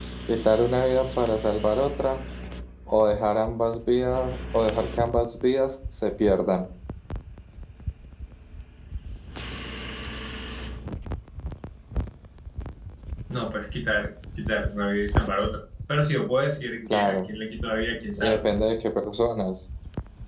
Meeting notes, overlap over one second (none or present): none